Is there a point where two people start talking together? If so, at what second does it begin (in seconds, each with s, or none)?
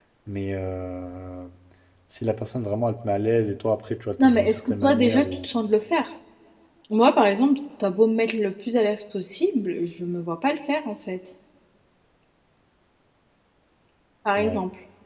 4.2 s